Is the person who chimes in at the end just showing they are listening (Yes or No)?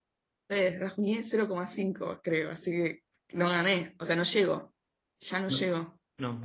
No